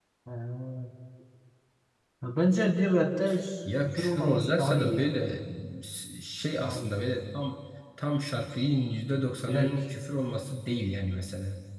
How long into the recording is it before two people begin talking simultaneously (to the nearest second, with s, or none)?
4 s